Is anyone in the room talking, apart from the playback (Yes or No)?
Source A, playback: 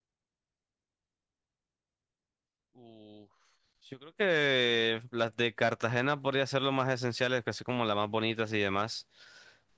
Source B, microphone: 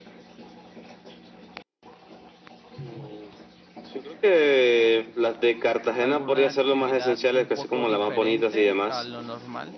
Yes